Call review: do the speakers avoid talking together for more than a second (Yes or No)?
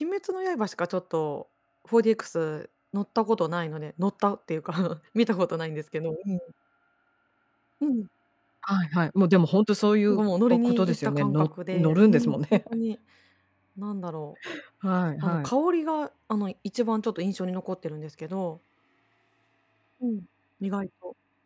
No